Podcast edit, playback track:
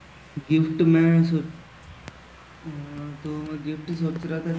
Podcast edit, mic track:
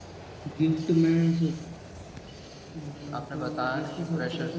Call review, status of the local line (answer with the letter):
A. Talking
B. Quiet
A